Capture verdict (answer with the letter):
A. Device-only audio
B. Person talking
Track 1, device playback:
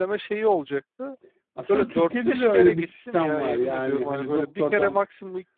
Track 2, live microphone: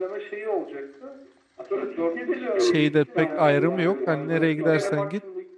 B